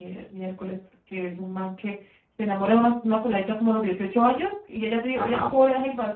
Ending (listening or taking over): listening